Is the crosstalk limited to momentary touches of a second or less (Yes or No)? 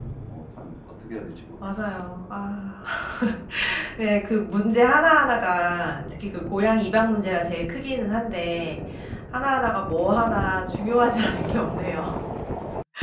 Yes